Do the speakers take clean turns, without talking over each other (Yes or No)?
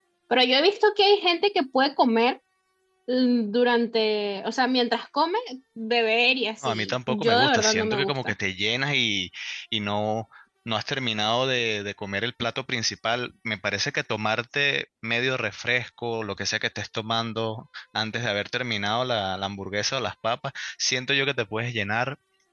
No